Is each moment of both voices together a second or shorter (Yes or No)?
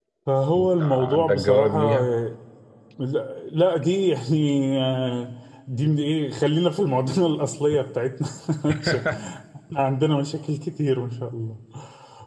No